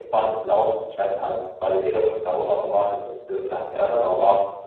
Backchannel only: No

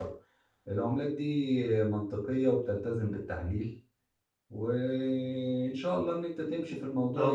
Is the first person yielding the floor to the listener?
Yes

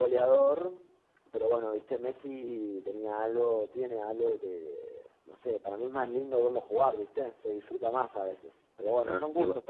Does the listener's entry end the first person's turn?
Yes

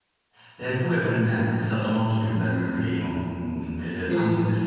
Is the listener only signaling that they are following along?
Yes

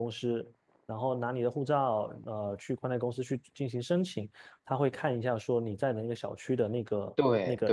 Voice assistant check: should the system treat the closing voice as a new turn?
No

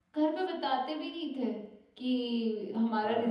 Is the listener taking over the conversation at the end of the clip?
No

